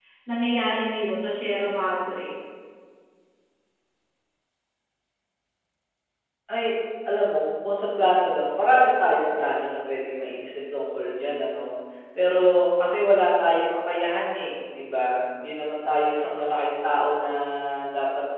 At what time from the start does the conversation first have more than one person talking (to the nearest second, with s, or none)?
none